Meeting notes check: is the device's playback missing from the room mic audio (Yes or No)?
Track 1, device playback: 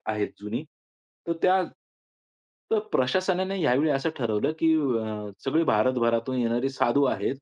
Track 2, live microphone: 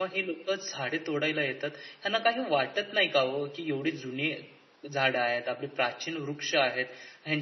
Yes